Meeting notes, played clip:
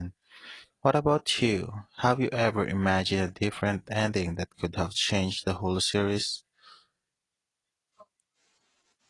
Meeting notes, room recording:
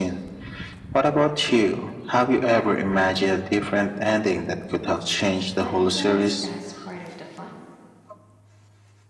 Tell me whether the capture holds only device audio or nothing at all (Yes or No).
No